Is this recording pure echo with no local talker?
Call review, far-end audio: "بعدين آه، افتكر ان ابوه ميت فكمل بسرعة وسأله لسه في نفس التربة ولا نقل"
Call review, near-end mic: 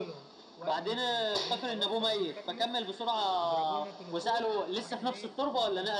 No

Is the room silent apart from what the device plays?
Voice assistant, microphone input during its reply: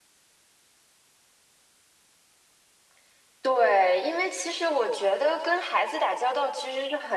Yes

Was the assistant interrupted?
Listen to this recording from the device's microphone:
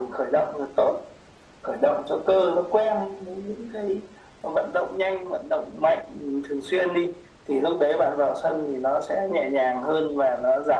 No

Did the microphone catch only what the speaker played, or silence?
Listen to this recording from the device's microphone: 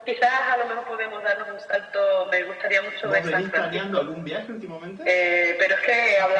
No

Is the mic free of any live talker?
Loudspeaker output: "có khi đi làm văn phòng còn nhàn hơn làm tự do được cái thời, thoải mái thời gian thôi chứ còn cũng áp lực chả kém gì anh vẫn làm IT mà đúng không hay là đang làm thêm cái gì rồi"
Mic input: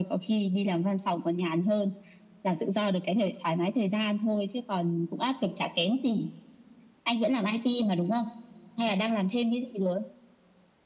Yes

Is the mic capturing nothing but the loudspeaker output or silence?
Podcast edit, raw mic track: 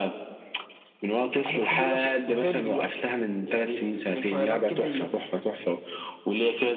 Yes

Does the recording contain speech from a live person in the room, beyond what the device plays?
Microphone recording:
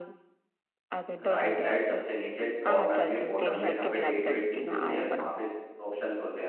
Yes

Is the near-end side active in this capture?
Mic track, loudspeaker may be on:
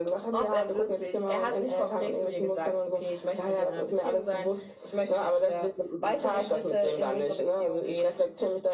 No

